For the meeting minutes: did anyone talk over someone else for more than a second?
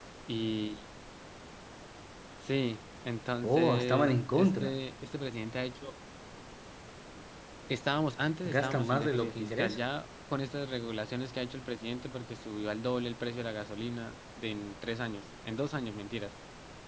Yes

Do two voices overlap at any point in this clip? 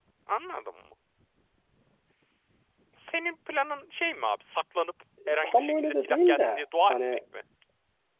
Yes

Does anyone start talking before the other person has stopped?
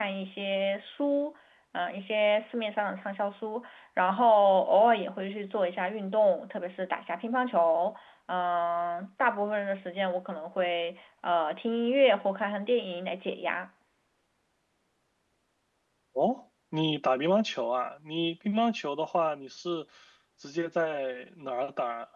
No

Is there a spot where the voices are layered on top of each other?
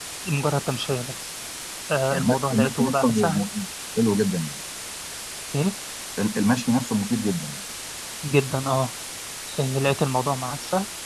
Yes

